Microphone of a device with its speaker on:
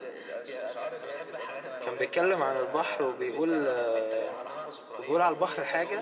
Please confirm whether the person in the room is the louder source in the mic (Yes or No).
Yes